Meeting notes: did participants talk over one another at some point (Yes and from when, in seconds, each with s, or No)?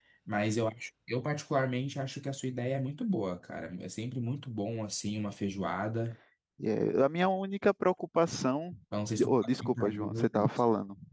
Yes, from 9.3 s